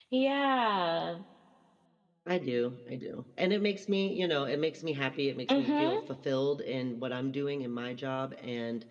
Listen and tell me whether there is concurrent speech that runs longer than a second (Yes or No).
No